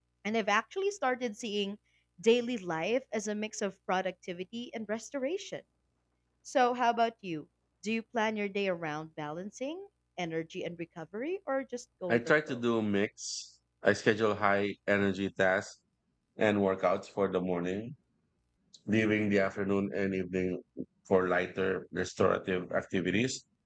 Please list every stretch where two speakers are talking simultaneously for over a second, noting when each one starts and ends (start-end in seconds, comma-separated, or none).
none